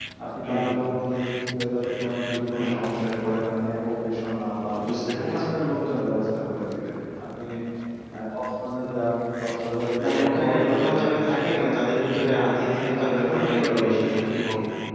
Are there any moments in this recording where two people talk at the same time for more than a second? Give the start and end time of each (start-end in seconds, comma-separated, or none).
10.0-13.9